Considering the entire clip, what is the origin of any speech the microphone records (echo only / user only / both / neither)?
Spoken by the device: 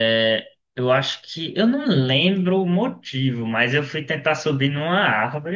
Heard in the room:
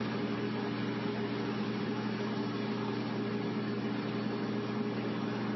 neither